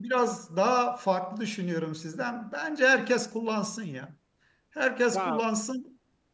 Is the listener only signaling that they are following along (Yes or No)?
Yes